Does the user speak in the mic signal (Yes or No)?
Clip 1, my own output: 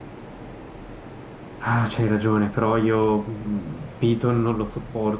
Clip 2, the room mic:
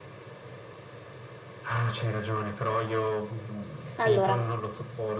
Yes